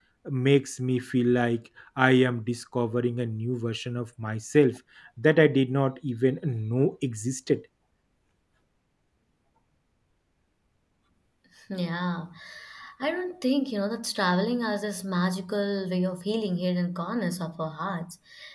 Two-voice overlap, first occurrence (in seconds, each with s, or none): none